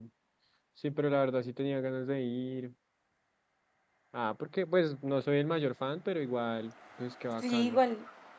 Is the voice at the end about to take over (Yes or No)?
Yes